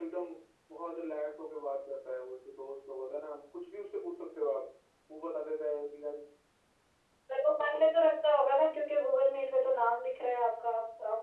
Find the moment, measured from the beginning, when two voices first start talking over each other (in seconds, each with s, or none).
none